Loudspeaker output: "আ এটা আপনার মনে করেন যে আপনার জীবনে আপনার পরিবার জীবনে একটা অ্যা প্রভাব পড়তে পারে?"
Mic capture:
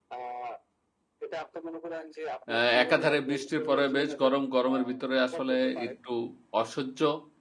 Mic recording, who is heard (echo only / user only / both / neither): both